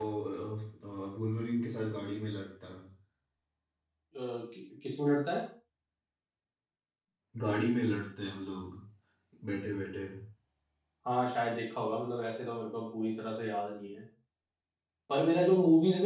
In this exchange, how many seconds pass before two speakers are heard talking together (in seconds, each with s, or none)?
none